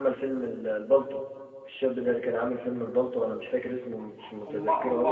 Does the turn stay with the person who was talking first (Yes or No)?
No